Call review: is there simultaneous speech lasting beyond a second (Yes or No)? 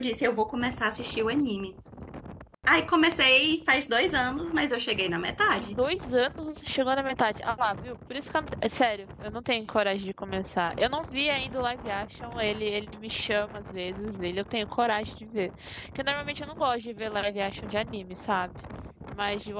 No